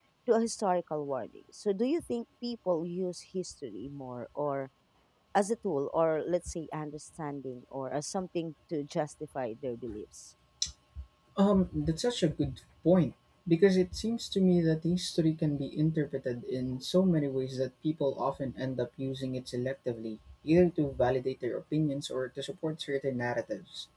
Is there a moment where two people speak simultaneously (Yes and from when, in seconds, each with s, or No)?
No